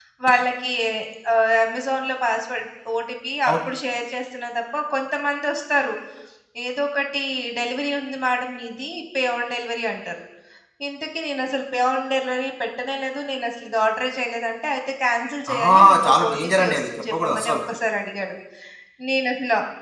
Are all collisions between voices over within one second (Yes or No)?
No